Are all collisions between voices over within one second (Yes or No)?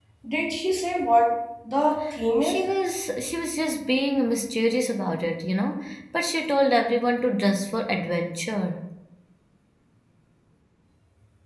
Yes